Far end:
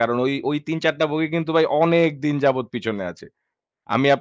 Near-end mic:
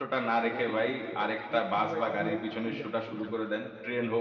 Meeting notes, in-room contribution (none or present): present